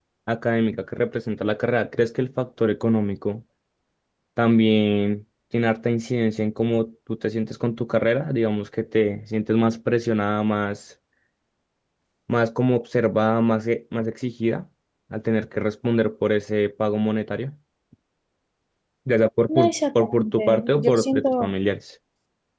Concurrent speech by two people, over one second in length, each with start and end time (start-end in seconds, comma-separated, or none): 19.5-21.5